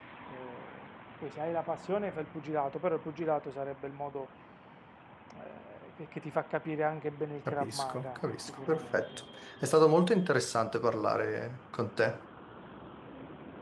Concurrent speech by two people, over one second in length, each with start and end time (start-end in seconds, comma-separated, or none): 7.5-9.0